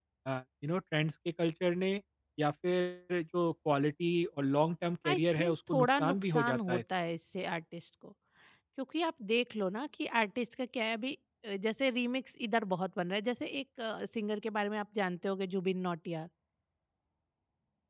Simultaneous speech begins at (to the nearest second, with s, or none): 5 s